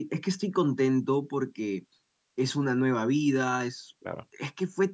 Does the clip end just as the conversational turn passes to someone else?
No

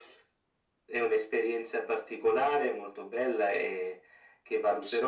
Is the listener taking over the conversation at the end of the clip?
No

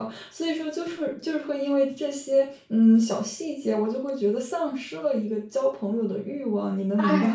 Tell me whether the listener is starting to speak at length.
Yes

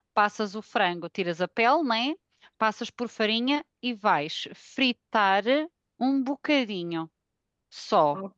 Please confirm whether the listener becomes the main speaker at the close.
Yes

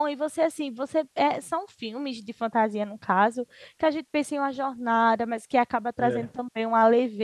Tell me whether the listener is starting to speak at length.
No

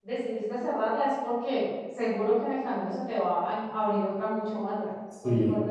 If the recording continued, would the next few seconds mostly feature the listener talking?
Yes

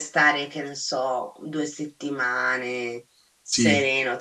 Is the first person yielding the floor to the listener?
No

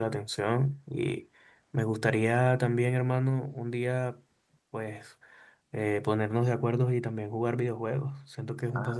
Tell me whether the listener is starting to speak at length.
Yes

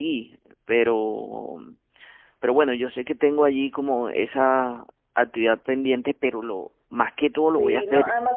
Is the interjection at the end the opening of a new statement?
Yes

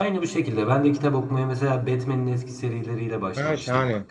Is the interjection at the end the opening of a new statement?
Yes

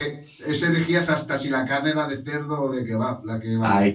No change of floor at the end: No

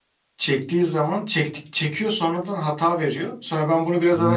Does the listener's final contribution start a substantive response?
Yes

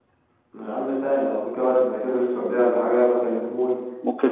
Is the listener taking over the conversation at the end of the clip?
Yes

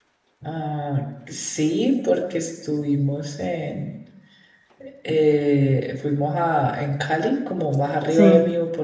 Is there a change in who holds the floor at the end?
No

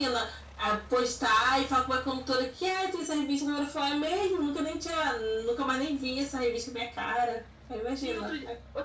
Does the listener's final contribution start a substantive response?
Yes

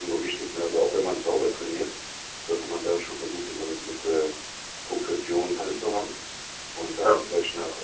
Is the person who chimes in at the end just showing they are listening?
Yes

